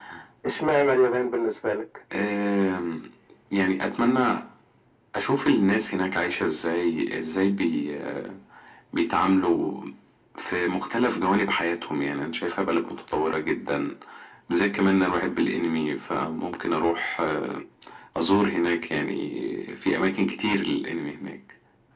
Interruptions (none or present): none